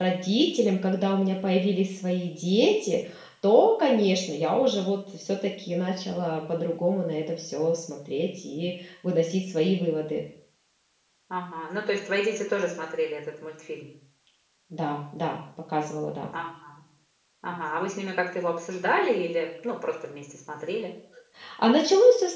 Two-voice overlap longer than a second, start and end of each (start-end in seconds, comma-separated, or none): none